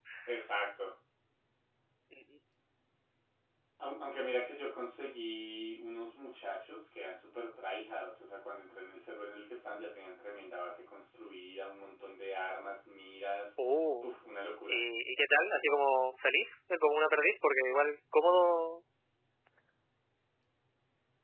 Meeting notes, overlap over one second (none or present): none